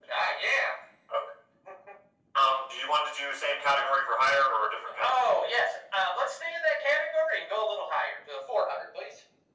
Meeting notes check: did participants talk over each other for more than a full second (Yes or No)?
No